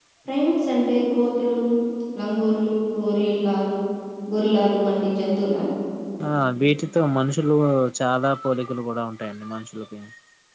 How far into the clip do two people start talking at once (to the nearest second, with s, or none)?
none